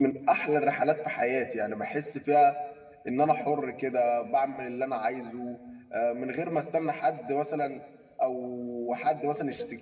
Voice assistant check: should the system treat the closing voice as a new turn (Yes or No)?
No